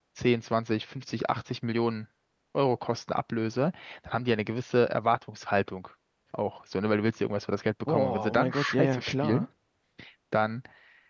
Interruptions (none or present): present